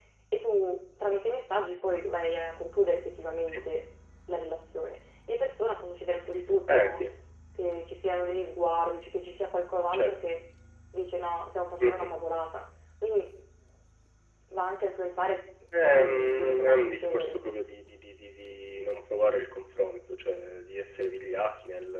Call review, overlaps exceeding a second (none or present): present